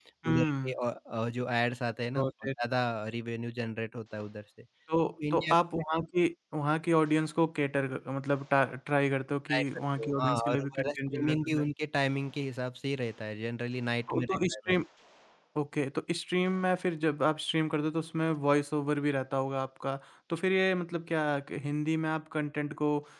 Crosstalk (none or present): present